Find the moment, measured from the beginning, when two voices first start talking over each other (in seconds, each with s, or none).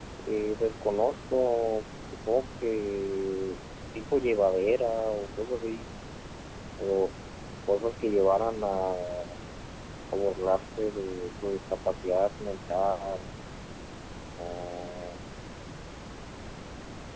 none